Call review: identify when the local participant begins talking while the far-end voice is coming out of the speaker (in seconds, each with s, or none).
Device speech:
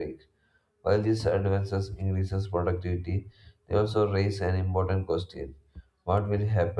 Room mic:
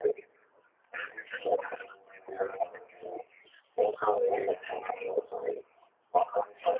none